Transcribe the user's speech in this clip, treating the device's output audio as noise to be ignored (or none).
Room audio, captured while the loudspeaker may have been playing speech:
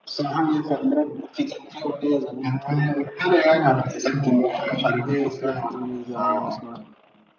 ايه سلاح التلميذ ده اول مرة اسمعها